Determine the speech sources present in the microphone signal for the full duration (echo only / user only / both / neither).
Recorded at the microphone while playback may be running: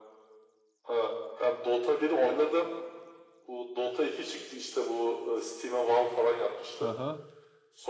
both